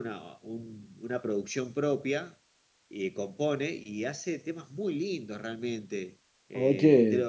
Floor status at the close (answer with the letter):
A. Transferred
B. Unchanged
B